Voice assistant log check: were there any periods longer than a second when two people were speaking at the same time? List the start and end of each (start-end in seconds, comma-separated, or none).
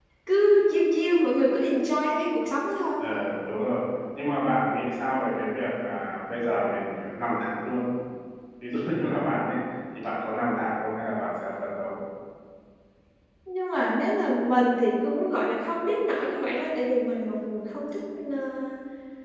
none